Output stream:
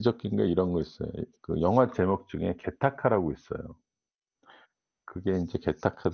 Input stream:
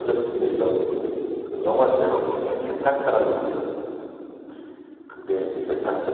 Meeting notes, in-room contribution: none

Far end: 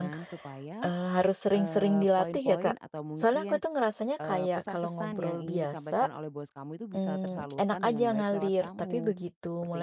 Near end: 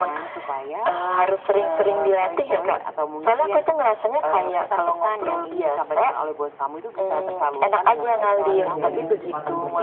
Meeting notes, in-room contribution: present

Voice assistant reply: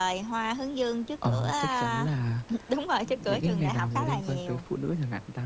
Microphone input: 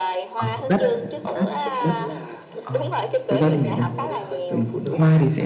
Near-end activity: present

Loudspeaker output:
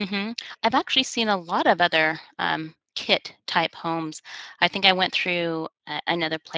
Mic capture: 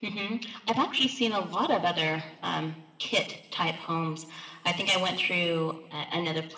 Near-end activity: none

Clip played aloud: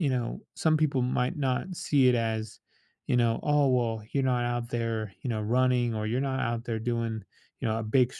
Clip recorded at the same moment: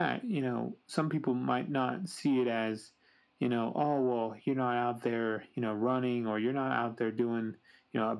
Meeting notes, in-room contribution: none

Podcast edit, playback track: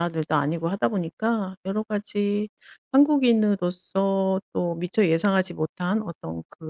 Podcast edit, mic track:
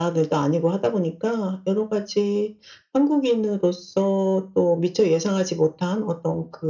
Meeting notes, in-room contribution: none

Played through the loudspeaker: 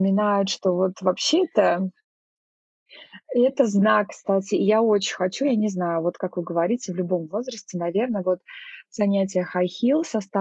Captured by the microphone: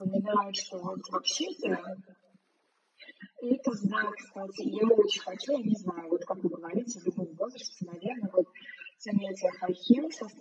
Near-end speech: none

